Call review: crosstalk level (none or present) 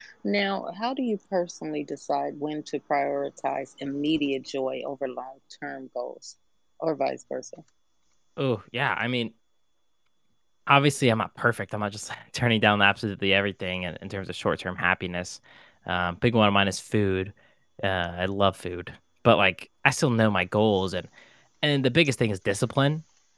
none